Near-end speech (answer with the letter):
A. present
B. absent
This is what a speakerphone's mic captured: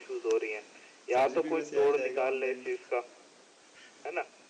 A